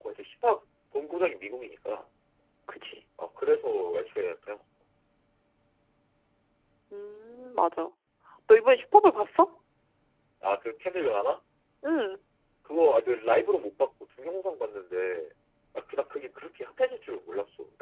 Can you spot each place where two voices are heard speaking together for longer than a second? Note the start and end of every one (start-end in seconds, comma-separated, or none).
none